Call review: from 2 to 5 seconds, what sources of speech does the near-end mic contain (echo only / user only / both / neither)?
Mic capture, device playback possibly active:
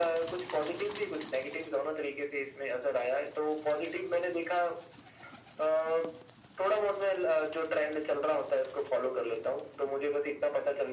echo only